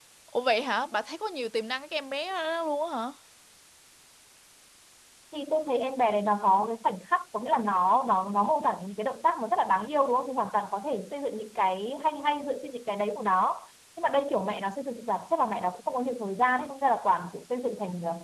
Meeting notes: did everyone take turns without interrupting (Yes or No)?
Yes